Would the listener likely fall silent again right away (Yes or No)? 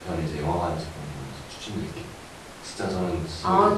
No